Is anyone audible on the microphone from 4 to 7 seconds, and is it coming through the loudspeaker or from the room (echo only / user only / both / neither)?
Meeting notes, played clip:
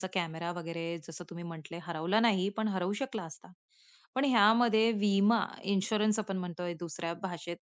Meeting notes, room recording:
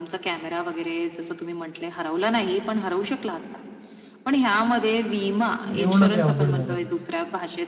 both